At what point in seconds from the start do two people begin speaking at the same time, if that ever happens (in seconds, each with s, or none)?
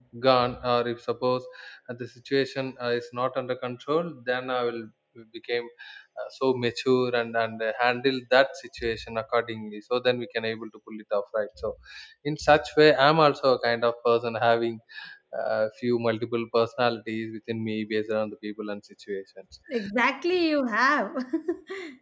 none